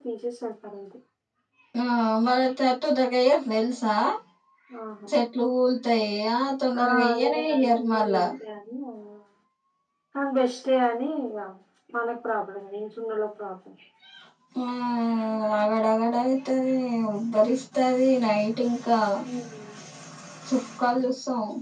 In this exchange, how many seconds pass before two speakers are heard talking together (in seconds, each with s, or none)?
6.8 s